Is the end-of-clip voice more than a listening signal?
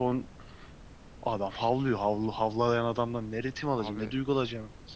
No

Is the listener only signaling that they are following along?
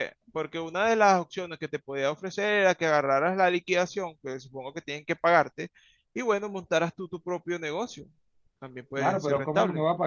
No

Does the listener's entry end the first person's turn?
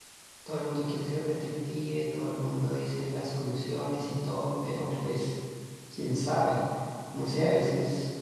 No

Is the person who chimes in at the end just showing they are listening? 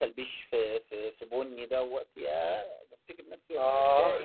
No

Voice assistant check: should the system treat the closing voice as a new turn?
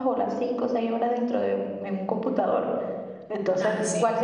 No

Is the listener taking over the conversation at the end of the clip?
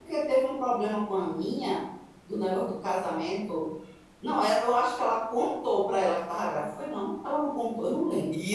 Yes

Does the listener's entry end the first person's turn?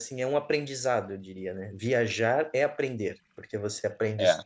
No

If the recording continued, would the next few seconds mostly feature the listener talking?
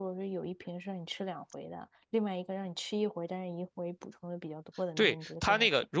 Yes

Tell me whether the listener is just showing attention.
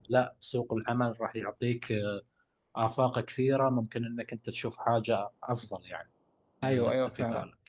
No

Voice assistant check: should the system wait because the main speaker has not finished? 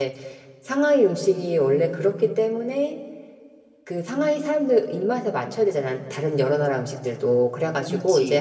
Yes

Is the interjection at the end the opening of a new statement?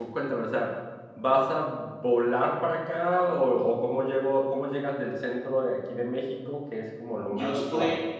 Yes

